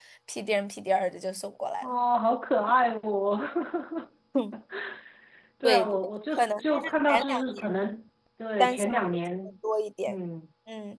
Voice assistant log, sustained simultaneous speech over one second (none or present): present